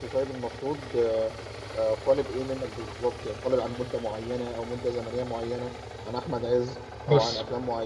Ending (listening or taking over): listening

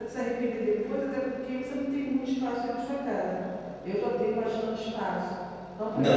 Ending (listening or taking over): taking over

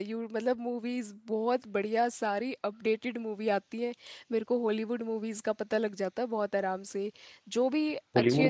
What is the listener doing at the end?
taking over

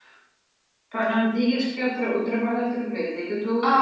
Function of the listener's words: taking over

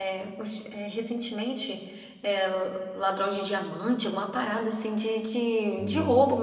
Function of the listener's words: listening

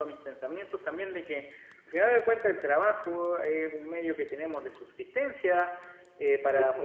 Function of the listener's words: listening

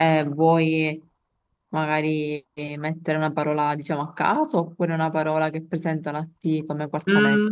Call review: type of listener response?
taking over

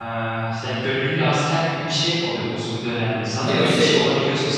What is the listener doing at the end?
listening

